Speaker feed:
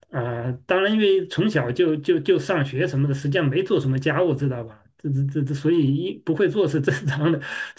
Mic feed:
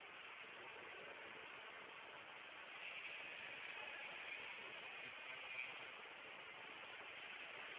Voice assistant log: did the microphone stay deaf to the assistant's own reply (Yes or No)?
Yes